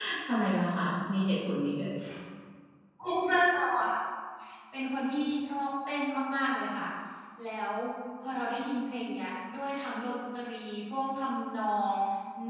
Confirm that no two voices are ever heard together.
Yes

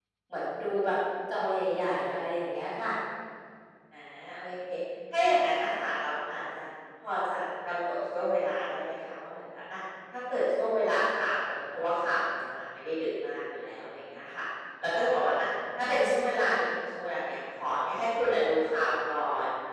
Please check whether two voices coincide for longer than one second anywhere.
No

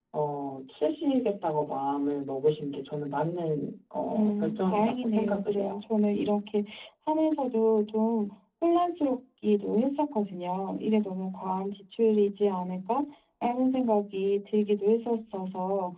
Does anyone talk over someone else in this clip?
Yes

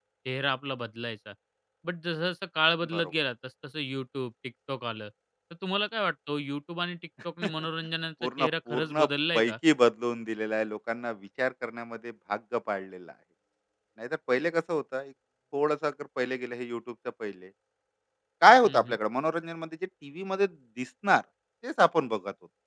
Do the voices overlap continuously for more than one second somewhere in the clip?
Yes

